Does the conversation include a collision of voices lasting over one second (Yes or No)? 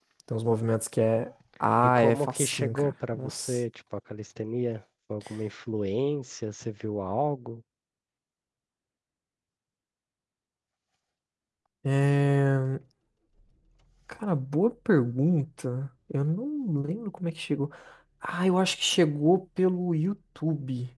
Yes